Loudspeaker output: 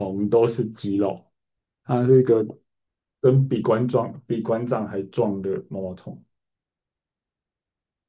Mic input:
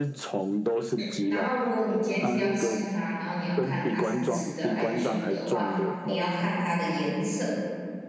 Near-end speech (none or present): present